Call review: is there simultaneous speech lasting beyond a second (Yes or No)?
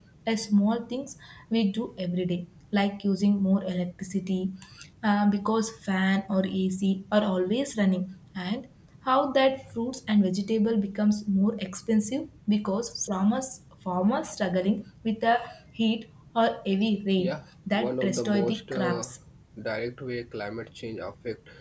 Yes